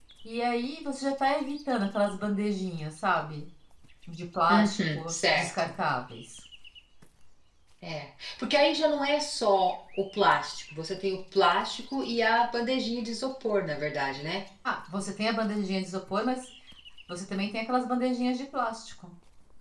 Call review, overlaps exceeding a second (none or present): present